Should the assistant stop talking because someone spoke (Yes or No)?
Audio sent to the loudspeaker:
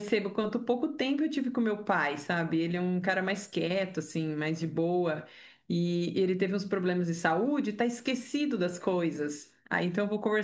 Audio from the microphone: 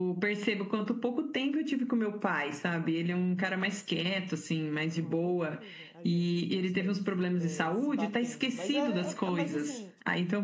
Yes